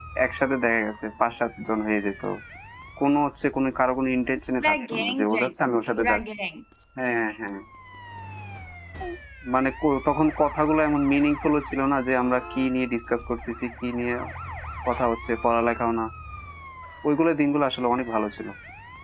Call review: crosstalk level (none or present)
present